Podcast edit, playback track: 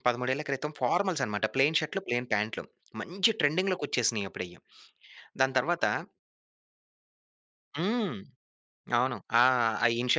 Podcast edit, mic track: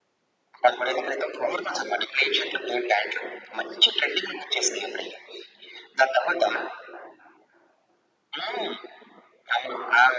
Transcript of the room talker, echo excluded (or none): none